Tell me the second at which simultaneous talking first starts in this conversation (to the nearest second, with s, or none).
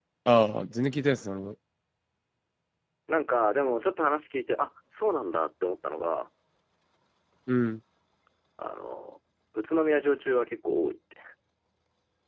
none